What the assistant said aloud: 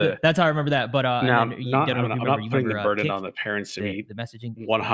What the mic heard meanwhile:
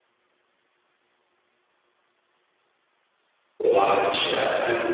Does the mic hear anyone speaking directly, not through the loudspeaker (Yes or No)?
Yes